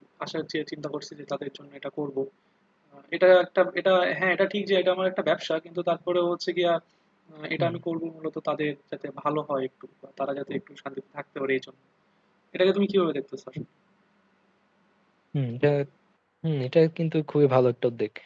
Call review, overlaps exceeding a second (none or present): none